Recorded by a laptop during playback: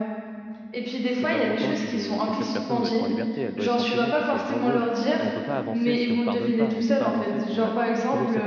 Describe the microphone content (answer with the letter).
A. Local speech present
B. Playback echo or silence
A